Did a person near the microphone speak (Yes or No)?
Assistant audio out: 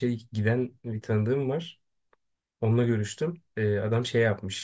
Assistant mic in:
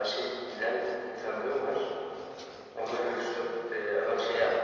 No